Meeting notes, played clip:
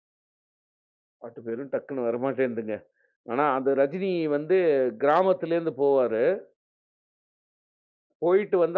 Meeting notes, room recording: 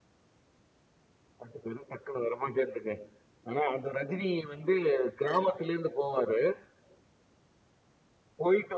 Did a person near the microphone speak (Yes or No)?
No